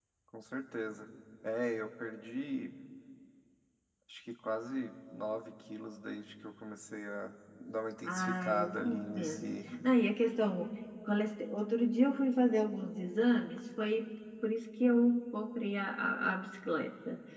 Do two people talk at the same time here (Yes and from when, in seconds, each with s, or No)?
Yes, from 8.0 s